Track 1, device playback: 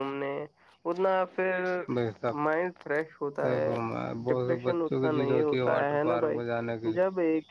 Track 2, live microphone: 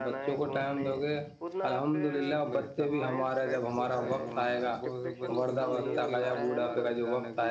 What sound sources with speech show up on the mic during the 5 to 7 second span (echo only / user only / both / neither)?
both